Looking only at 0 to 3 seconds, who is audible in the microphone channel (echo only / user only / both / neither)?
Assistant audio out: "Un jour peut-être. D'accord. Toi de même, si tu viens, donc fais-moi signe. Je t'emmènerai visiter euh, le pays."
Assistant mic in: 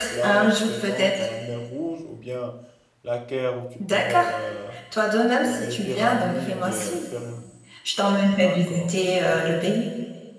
both